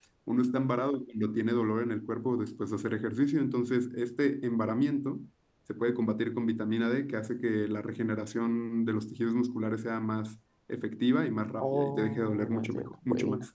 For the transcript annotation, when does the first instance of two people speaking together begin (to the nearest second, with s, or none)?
12 s